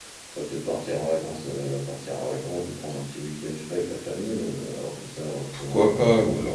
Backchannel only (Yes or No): No